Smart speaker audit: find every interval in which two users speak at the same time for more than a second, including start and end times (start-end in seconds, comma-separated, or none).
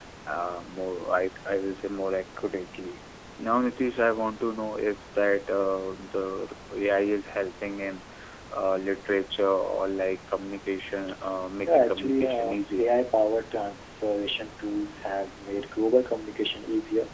11.6-12.9